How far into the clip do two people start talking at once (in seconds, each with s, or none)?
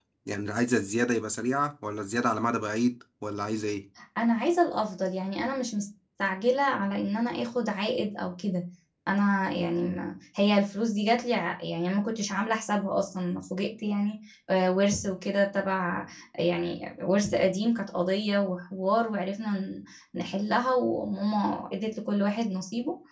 none